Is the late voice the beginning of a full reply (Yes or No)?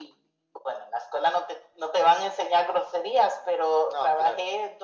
No